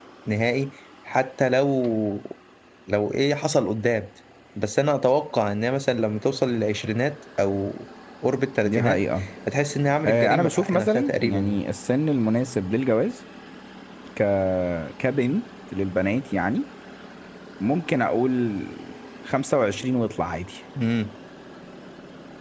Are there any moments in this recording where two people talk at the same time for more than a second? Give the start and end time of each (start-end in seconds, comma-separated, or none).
10.1-11.6